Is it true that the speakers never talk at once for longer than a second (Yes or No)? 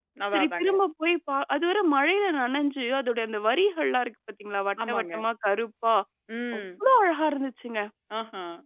Yes